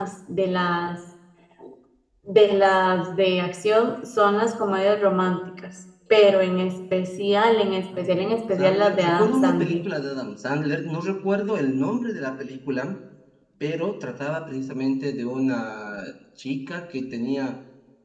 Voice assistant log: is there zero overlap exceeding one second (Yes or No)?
No